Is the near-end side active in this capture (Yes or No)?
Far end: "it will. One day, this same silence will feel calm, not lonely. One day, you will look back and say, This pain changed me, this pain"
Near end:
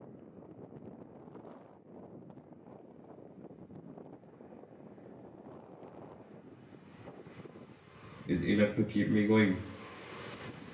Yes